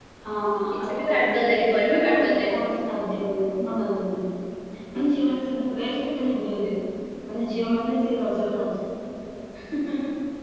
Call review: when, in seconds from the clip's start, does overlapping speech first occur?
0.8 s

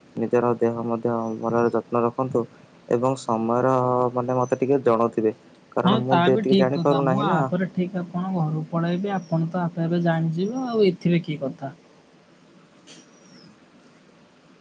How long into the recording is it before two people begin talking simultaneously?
5.8 s

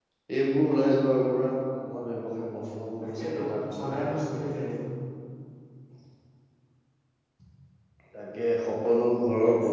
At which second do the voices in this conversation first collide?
3.0 s

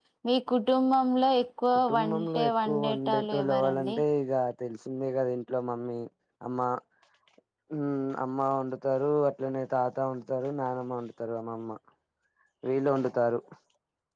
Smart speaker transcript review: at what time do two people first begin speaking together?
1.7 s

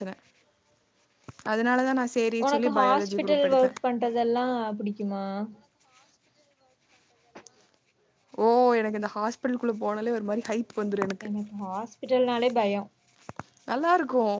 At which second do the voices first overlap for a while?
2.4 s

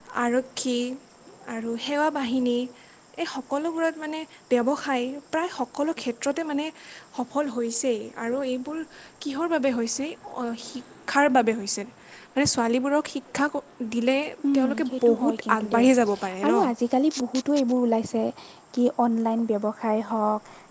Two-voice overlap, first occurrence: 14.6 s

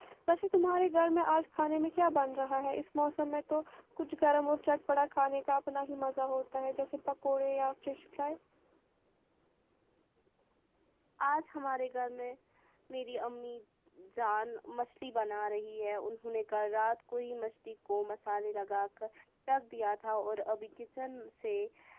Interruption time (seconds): none

